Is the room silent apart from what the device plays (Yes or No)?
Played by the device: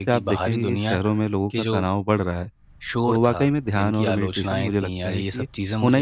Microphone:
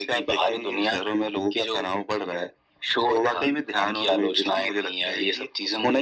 Yes